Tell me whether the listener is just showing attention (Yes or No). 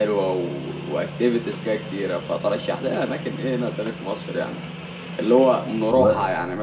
Yes